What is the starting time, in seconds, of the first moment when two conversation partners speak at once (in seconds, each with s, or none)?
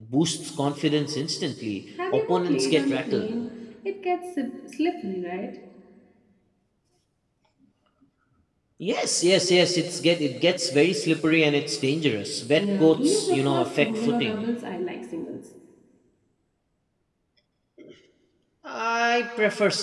2.1 s